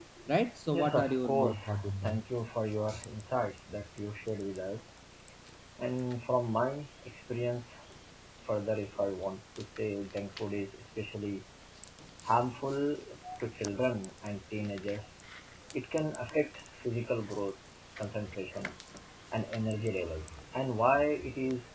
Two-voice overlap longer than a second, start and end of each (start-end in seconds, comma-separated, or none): 0.7-2.1